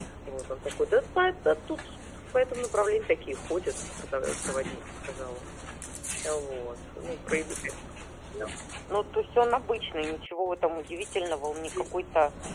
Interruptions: none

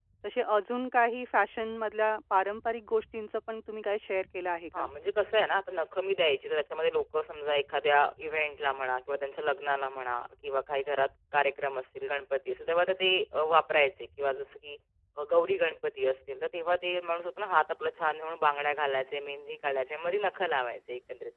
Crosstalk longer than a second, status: none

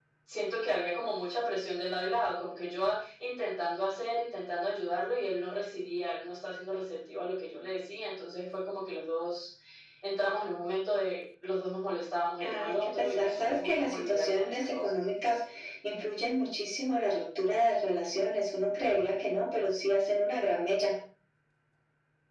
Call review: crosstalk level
present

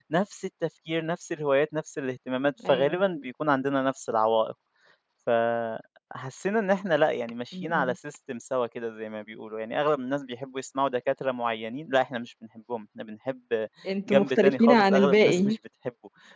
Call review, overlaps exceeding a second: present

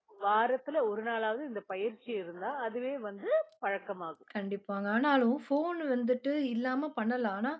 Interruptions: none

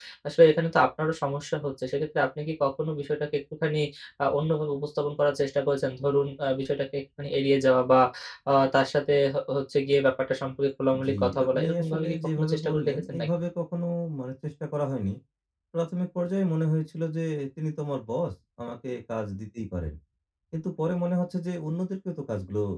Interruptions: present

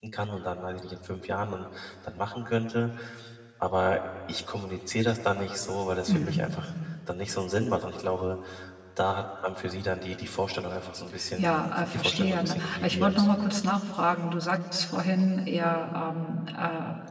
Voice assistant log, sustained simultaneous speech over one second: present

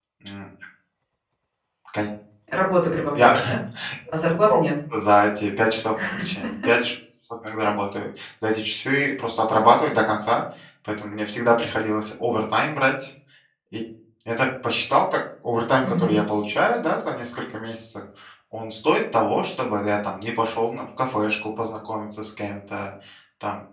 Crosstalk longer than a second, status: none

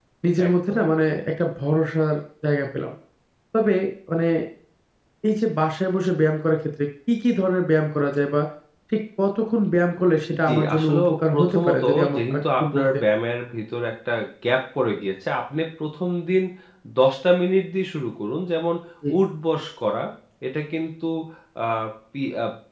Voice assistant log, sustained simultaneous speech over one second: present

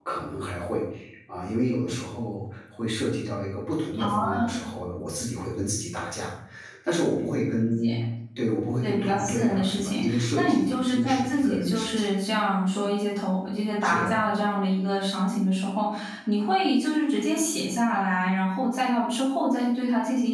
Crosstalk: present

